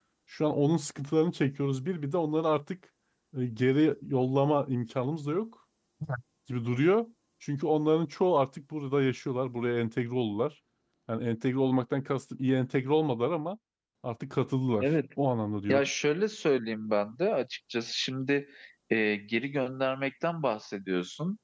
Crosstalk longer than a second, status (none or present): none